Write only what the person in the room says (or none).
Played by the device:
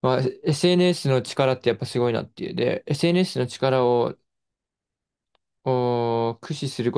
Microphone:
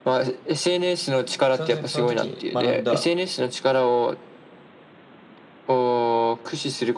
その時、その時に学んだ